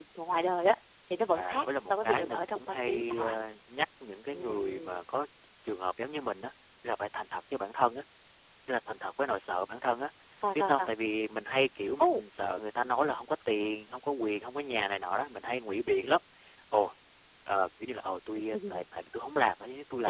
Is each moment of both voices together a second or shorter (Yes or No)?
No